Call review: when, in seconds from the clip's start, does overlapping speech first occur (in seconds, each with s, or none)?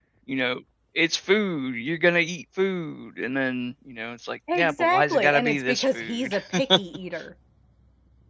4.5 s